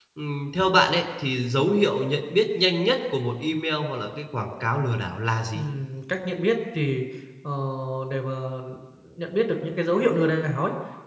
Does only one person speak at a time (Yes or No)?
Yes